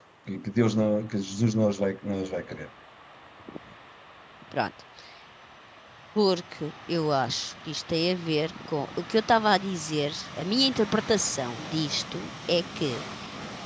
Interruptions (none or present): none